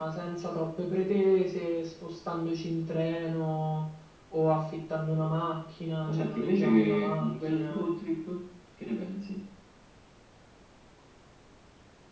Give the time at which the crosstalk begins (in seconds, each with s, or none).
6.1 s